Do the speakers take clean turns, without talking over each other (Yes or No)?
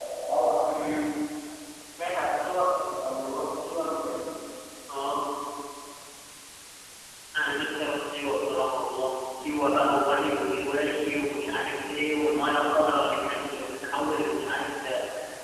Yes